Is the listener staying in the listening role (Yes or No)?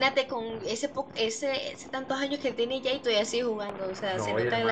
No